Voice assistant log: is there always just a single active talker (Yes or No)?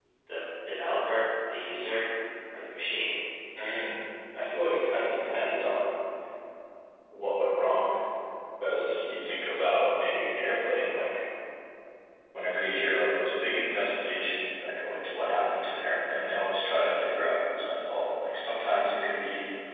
Yes